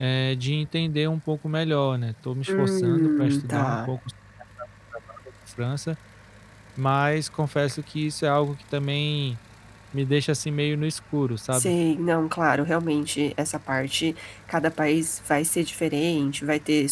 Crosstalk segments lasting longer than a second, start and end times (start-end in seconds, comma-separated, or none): 2.5-3.9